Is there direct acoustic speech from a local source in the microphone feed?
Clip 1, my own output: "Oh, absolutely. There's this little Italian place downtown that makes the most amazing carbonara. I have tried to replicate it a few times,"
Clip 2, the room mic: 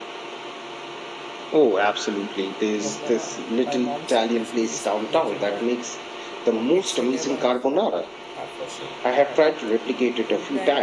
Yes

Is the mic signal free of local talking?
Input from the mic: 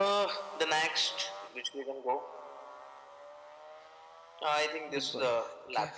No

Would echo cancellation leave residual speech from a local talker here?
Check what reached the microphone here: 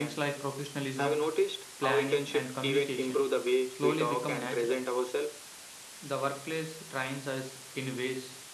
Yes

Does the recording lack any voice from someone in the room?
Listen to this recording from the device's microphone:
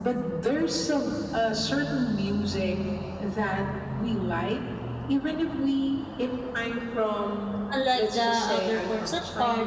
No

